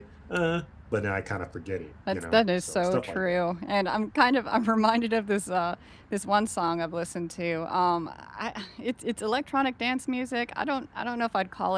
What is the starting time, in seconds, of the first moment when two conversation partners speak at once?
2.1 s

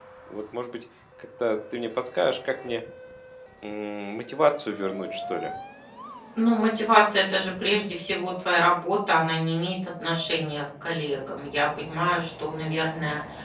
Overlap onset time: none

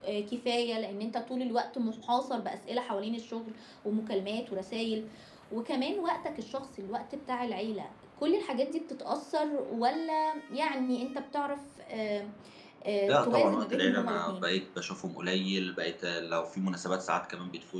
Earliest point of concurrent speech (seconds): 13.1 s

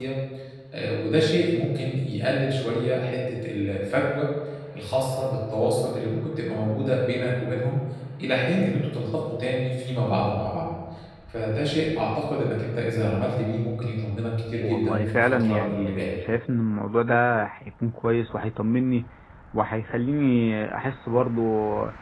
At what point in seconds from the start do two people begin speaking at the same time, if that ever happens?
14.6 s

